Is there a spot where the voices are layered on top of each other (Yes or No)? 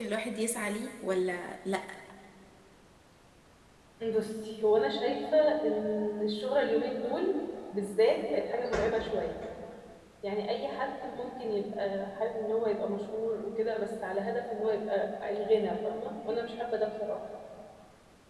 No